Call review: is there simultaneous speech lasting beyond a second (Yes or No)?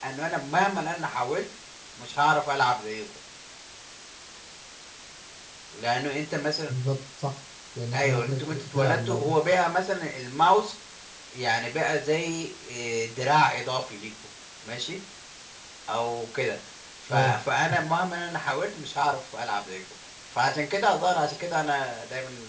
Yes